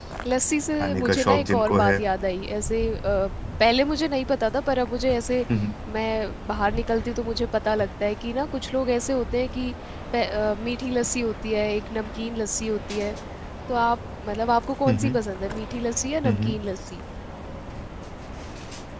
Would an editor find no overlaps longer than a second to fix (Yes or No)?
No